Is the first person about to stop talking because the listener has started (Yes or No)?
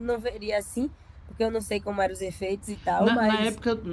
Yes